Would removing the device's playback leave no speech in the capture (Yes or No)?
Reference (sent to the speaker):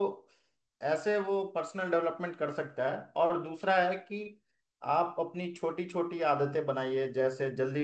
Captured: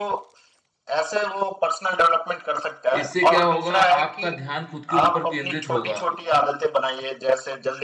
No